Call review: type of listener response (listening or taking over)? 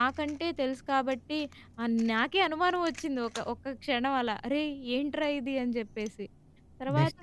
taking over